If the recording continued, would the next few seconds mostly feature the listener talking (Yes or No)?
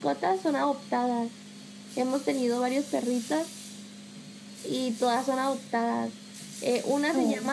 No